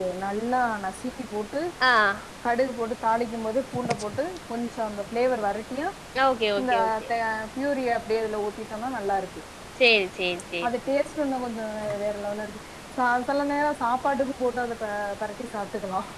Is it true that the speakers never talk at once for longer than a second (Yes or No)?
Yes